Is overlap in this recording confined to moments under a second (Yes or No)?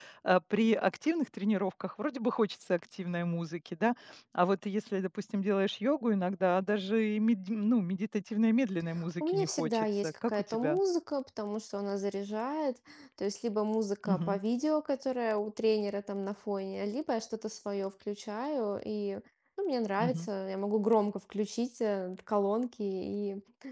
No